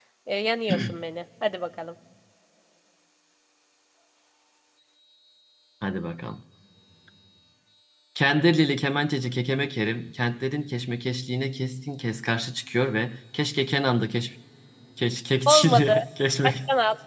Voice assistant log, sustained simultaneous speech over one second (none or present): none